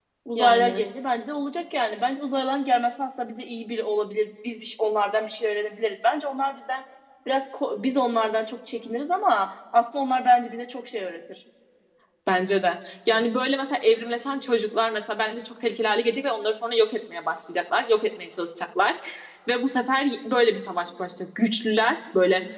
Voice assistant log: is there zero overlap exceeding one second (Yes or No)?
Yes